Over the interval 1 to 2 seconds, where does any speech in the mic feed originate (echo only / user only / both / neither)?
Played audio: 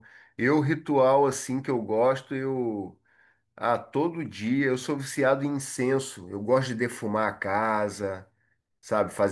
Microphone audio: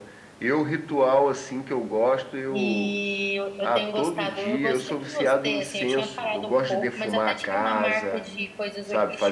echo only